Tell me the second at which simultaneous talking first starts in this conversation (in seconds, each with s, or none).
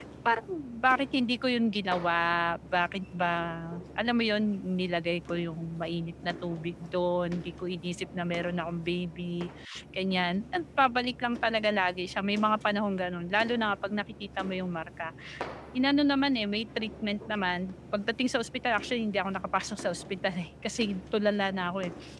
none